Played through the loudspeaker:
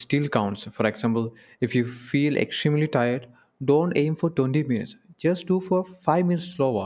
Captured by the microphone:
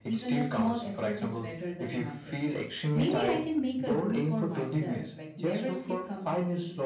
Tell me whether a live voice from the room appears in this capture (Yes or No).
Yes